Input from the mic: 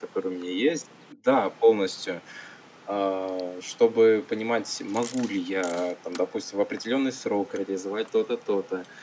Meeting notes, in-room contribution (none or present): present